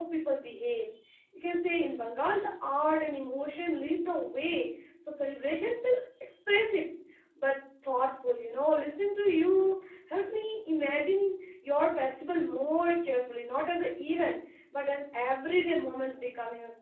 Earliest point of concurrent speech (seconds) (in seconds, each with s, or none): none